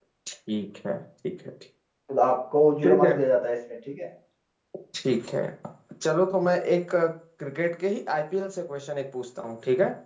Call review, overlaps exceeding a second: none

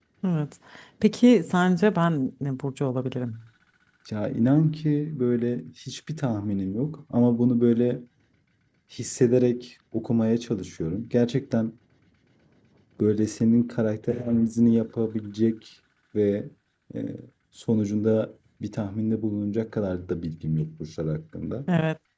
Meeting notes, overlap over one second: none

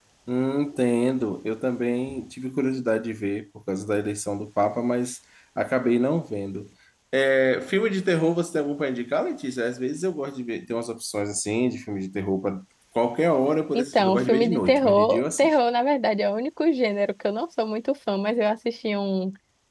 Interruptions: present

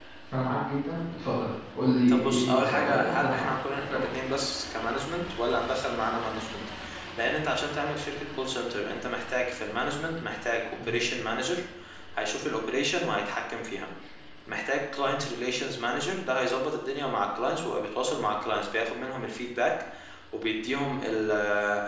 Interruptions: present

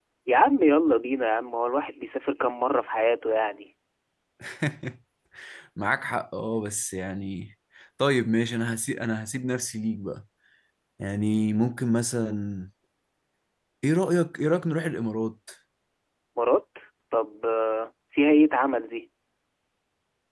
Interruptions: none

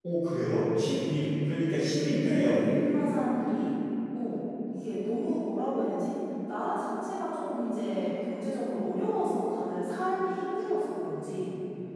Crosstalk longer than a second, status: none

